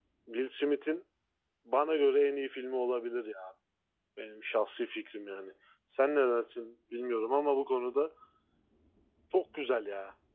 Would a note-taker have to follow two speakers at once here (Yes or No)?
No